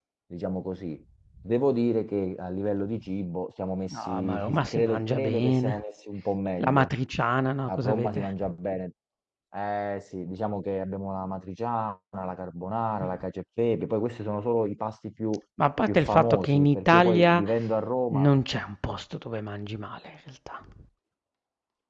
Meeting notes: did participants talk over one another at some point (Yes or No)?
Yes